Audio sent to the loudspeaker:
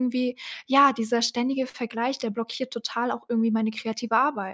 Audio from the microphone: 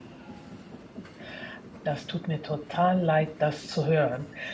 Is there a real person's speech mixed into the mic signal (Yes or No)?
Yes